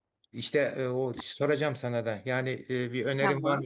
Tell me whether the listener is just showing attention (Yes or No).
Yes